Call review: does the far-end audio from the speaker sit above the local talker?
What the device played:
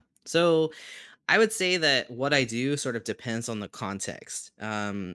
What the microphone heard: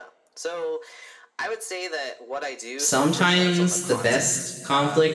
No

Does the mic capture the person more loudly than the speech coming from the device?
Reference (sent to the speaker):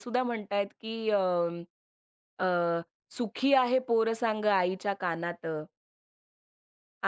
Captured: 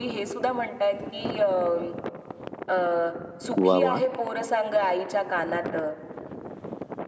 Yes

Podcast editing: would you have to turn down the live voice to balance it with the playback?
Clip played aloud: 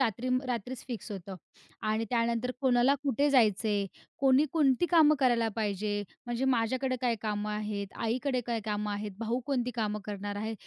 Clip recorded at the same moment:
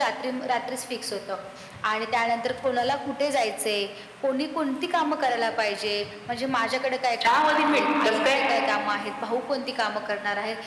Yes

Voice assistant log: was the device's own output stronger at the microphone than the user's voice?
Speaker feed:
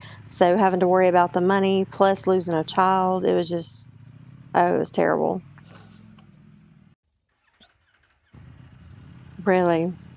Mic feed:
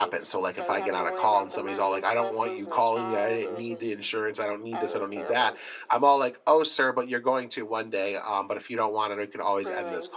No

